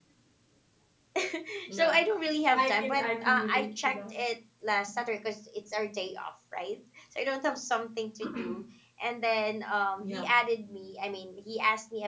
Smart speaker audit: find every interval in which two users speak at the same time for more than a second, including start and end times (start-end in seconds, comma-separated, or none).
2.5-4.2